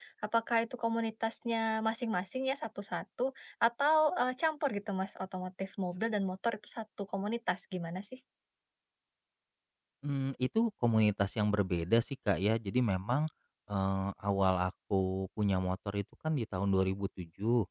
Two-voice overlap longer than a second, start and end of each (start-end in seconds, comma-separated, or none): none